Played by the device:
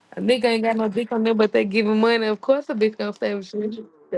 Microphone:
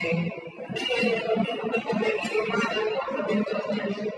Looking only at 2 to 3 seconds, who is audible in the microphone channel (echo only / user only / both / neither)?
echo only